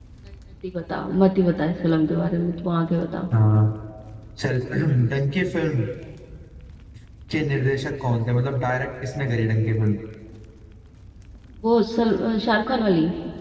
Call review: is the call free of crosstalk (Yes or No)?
Yes